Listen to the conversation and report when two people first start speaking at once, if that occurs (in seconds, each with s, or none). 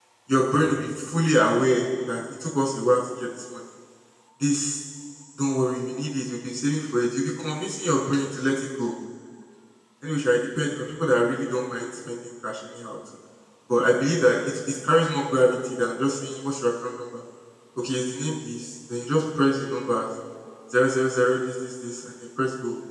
none